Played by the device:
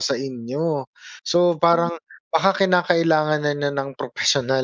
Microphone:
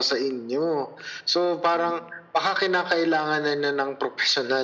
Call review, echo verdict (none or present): present